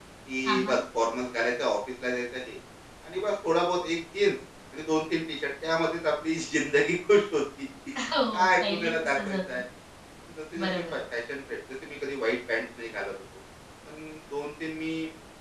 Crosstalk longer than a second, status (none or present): present